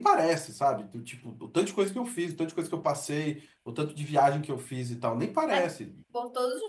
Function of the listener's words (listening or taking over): taking over